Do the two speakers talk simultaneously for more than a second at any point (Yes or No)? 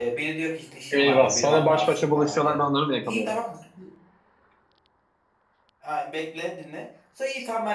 Yes